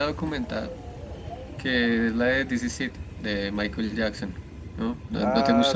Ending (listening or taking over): taking over